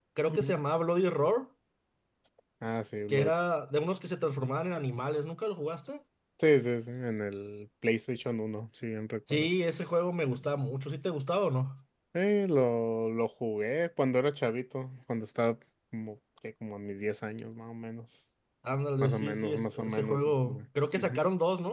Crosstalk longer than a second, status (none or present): present